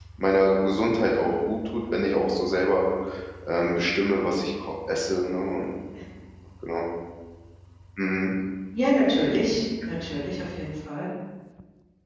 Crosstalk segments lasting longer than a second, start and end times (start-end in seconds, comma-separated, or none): none